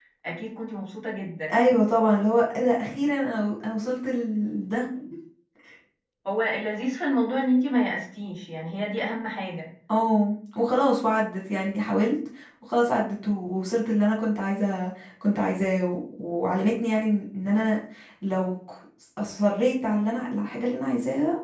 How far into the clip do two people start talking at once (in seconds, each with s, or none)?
none